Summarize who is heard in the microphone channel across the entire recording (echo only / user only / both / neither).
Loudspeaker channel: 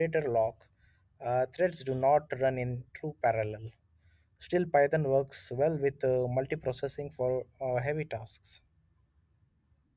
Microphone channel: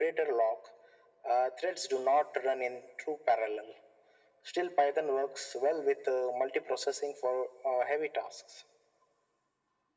echo only